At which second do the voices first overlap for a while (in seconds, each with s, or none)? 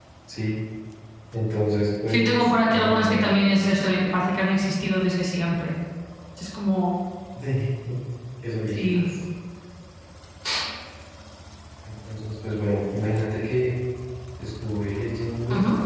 2.1 s